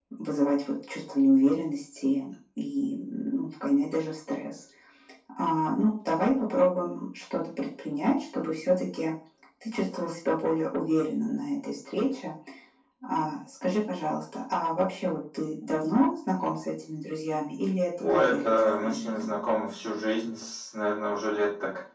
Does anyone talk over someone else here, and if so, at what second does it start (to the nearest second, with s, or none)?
18 s